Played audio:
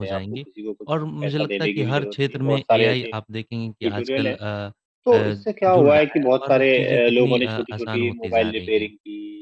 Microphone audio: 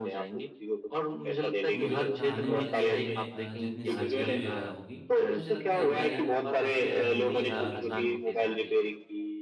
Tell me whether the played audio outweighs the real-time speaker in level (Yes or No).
Yes